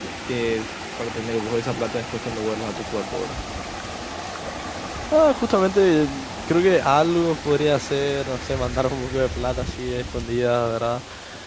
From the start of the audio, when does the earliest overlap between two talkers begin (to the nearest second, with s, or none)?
none